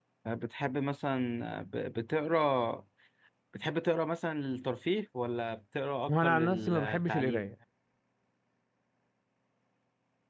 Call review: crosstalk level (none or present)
present